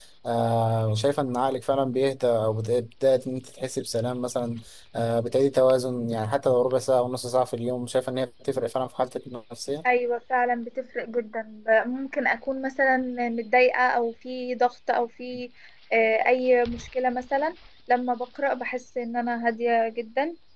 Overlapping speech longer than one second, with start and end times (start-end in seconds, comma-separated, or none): none